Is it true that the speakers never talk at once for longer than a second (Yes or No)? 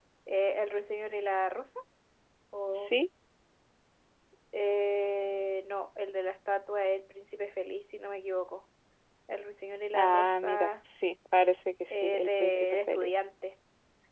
No